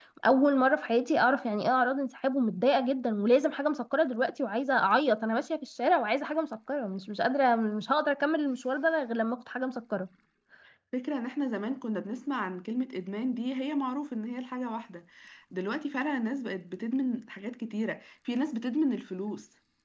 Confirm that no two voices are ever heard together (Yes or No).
Yes